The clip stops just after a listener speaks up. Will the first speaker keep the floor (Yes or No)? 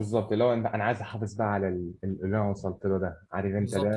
No